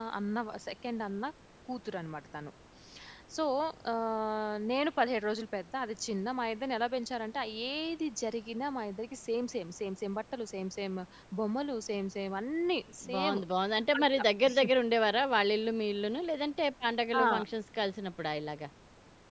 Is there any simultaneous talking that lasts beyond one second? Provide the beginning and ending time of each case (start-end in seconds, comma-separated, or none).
none